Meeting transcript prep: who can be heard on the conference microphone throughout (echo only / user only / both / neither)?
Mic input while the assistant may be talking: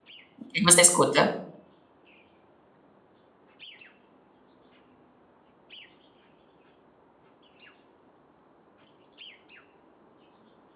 user only